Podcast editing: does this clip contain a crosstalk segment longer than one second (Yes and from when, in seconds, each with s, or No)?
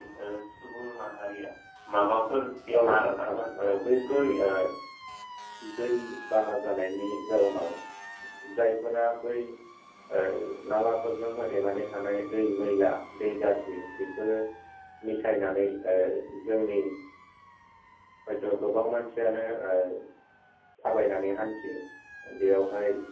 Yes, from 2.8 s